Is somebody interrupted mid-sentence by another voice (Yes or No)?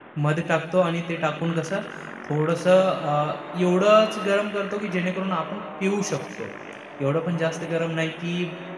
No